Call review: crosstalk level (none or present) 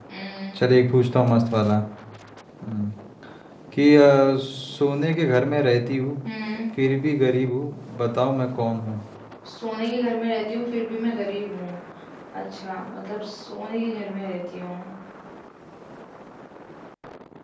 none